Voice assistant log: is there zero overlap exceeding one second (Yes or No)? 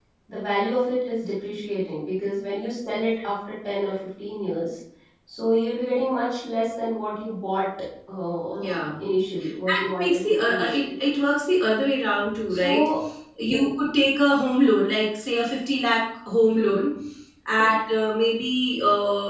No